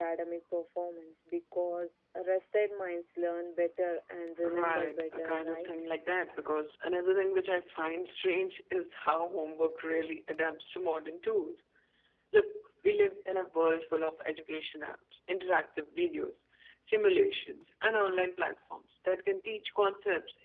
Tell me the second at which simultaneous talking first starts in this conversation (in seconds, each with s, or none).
4.4 s